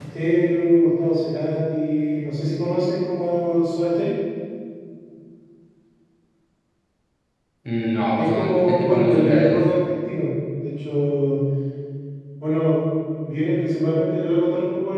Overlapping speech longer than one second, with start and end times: 8.2-9.6

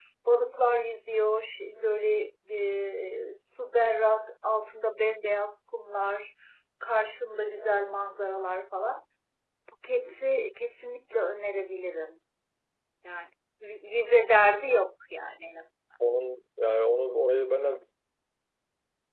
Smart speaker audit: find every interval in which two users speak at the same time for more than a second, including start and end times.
none

